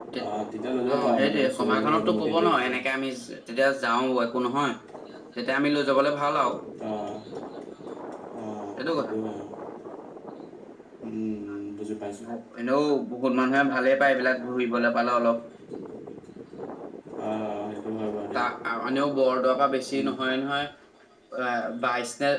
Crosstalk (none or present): present